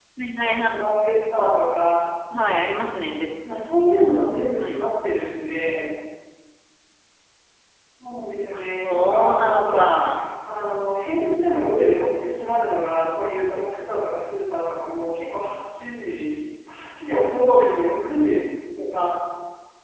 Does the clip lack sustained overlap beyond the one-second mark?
No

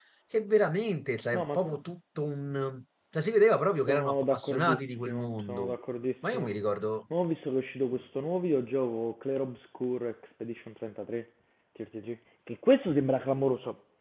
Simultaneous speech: Yes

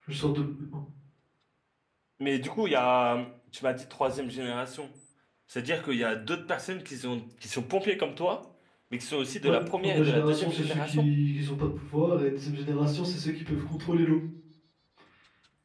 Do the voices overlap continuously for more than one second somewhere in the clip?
Yes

